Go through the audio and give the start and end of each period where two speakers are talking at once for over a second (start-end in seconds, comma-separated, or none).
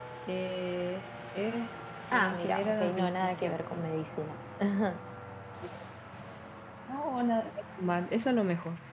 2.1-3.6